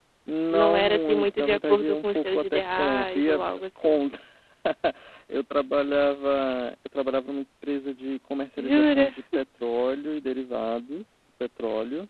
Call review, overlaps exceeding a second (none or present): present